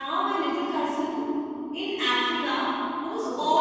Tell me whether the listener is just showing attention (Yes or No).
Yes